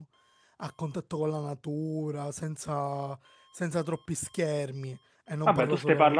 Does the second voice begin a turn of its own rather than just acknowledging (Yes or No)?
Yes